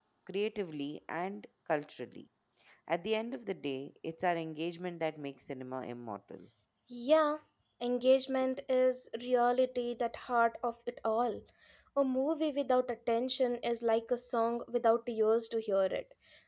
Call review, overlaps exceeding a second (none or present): none